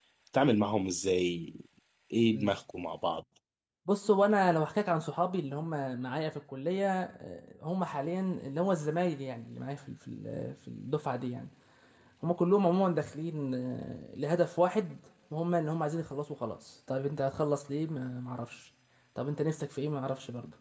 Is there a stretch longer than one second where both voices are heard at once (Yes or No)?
No